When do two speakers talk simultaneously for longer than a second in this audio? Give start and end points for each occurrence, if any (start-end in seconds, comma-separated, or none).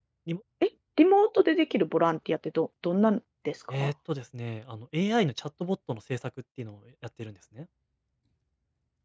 none